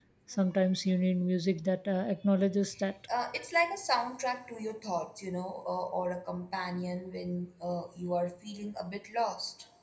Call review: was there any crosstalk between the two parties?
No

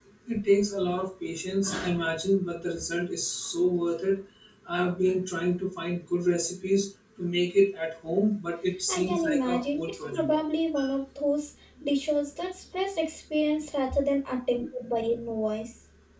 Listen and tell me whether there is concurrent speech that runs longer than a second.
Yes, from 8.9 s

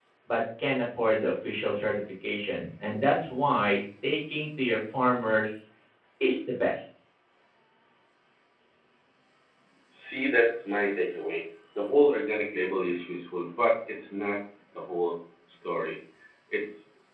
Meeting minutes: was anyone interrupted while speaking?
No

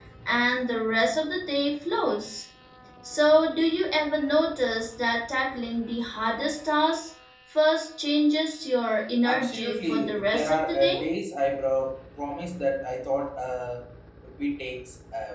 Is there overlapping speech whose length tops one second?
Yes, from 9.2 s

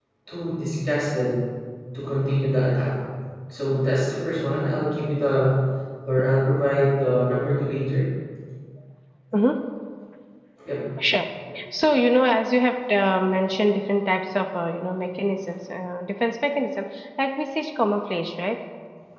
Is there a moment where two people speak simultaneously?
No

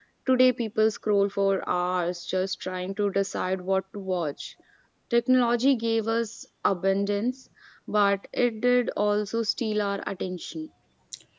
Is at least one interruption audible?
No

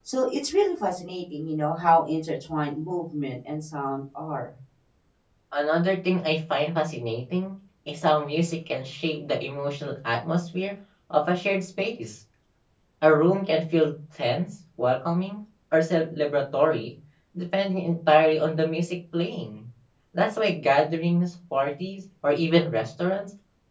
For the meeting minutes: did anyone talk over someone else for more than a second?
No

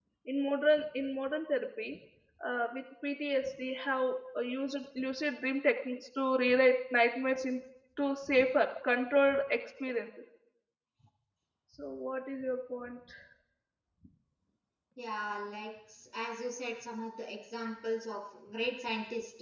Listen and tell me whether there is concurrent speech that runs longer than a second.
No

